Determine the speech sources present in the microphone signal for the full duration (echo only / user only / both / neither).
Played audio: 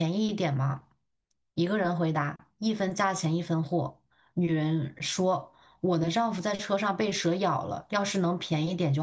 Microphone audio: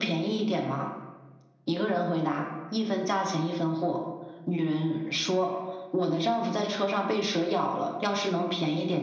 echo only